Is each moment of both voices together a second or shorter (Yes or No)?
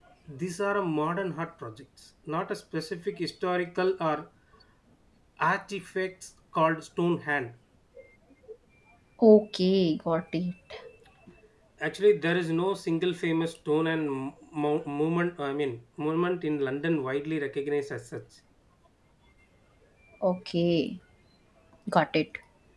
Yes